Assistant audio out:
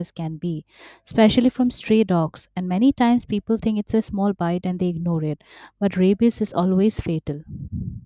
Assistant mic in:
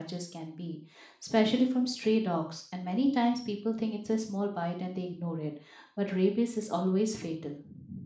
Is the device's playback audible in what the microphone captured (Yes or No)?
Yes